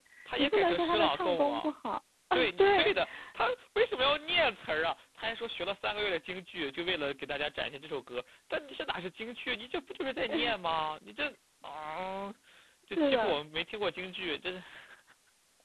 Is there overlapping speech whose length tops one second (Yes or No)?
Yes